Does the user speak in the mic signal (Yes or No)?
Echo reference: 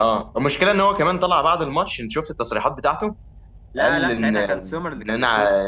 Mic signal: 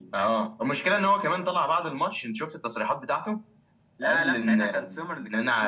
No